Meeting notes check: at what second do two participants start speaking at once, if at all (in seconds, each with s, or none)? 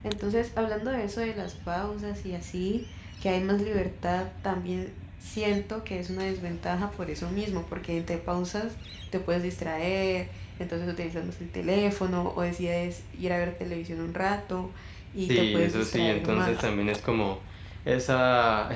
15.3 s